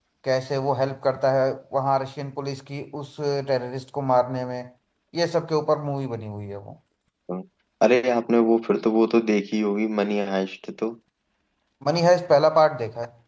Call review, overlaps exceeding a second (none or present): none